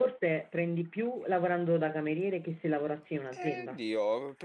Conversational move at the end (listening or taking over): taking over